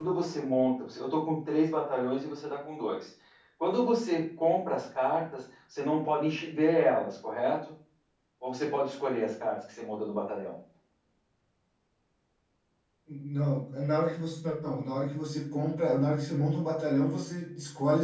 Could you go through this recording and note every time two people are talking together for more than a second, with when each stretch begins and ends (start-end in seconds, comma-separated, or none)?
none